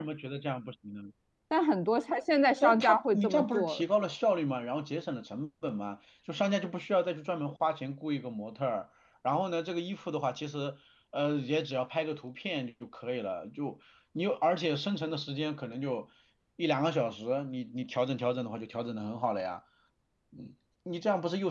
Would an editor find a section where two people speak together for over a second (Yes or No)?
Yes